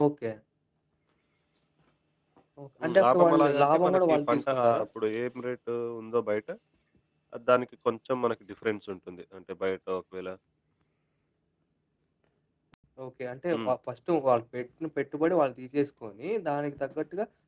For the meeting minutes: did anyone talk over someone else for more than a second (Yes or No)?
Yes